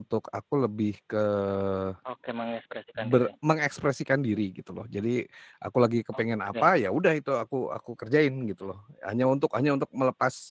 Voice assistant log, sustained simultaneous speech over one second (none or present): none